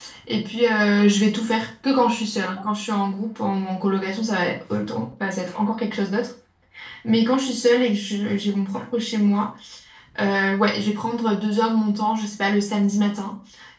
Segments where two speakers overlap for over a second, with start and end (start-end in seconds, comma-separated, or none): none